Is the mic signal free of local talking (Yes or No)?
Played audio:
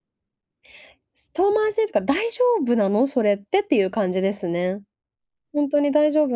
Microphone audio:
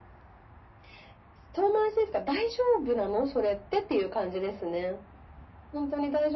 Yes